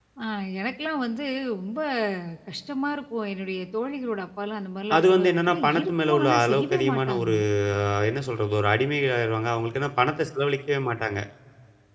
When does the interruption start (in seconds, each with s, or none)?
4.9 s